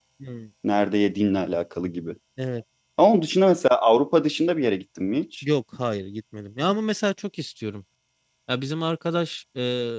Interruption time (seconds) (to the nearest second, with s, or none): none